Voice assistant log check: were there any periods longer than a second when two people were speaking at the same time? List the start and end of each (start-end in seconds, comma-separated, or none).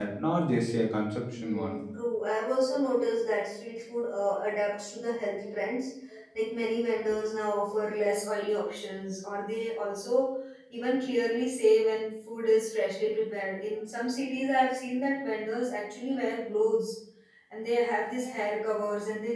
none